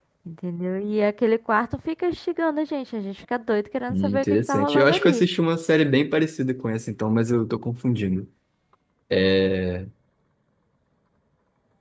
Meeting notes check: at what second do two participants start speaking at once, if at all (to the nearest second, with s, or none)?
4 s